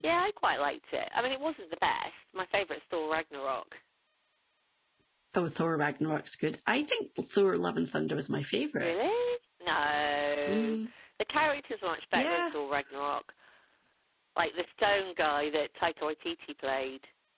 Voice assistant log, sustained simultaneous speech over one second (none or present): none